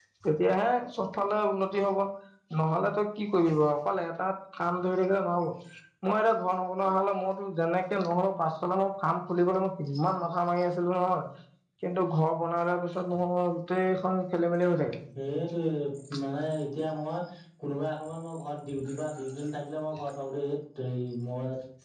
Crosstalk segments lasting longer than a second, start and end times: none

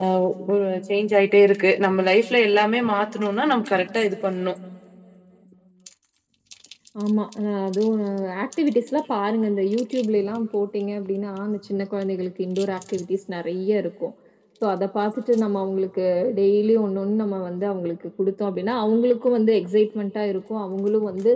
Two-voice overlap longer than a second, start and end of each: none

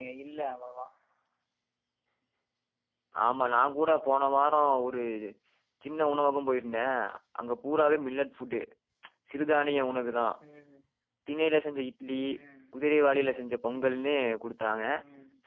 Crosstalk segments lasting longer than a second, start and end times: none

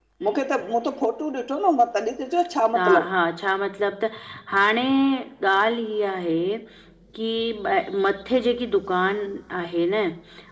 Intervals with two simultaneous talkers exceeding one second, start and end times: none

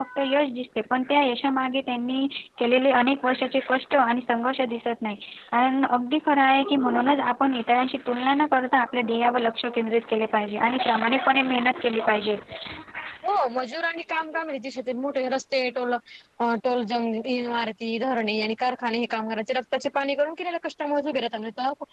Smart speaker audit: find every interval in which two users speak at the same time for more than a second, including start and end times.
none

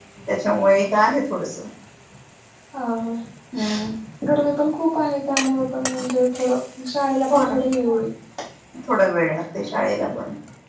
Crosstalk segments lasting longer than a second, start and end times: none

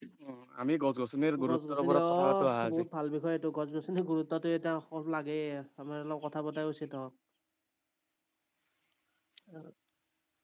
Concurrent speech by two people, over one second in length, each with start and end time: 1.5-2.8

